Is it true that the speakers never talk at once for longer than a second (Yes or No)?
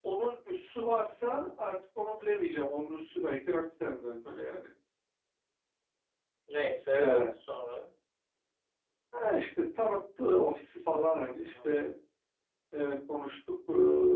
Yes